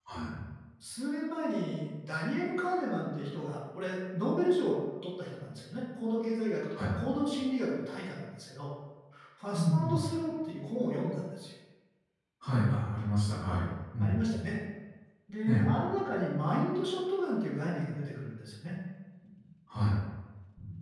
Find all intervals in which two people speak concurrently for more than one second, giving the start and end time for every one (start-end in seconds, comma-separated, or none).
none